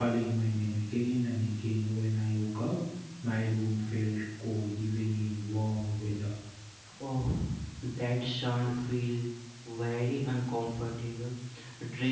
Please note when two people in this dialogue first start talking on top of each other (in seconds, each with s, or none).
none